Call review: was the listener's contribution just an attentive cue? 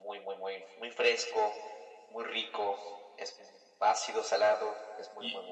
No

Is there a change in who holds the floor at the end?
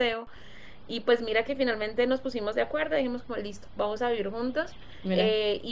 No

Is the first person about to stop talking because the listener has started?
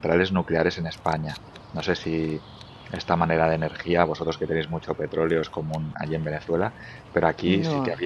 No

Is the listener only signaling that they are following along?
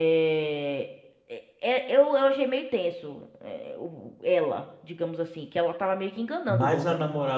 No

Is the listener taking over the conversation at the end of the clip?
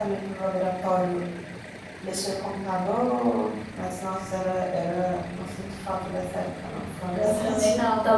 Yes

